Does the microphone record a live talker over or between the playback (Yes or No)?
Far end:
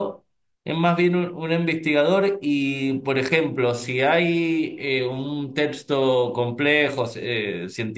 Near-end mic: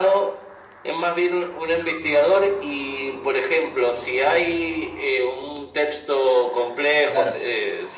Yes